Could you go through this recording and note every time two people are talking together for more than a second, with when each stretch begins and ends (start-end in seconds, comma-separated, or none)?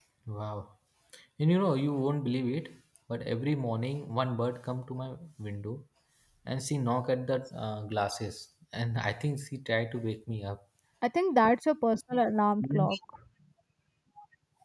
none